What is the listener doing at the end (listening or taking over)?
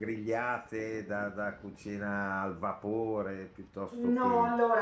taking over